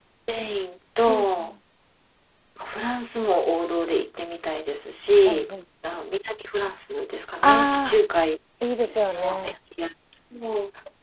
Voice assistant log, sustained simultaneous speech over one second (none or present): none